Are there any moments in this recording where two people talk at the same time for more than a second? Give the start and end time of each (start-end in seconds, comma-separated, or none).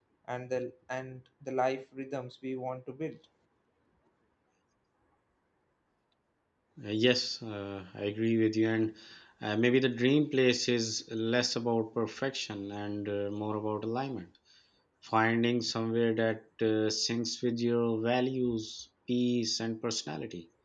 none